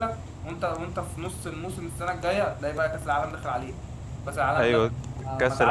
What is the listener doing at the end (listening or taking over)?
taking over